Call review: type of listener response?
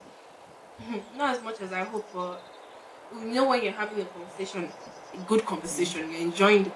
listening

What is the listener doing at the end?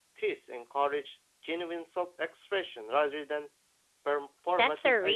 taking over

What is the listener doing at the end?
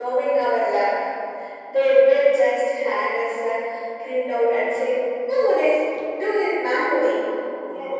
taking over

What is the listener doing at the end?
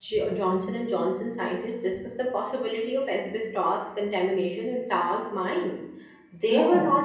listening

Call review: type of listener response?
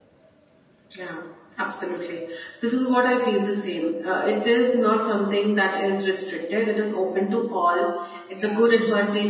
listening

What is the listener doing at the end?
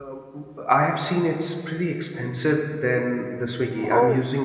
listening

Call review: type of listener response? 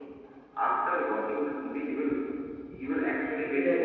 taking over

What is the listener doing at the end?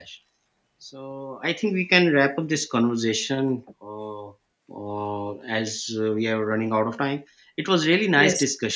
listening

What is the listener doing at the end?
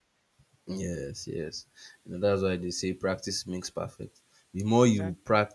listening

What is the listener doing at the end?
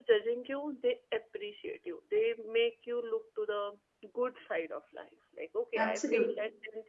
listening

